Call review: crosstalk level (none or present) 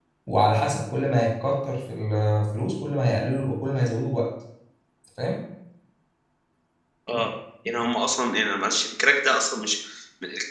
none